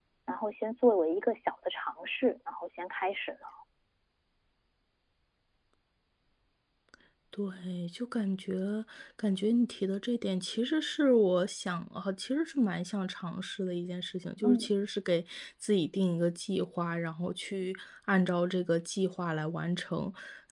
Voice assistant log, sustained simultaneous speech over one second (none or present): none